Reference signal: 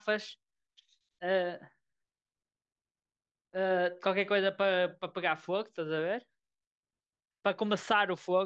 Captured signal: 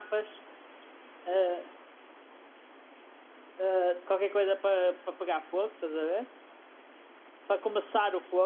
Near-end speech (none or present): none